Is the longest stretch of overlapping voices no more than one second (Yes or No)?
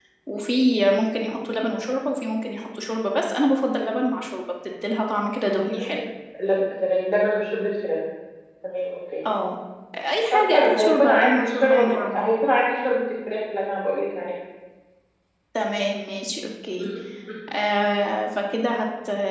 No